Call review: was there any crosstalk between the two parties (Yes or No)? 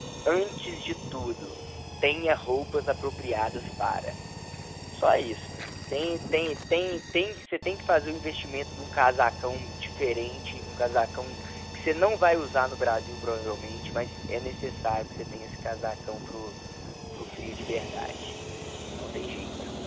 No